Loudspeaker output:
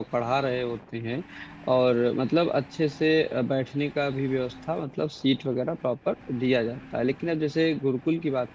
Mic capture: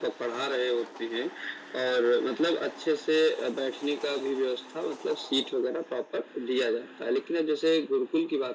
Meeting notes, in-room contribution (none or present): none